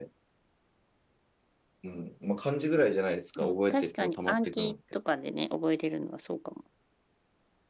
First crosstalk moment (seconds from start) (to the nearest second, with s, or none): 3 s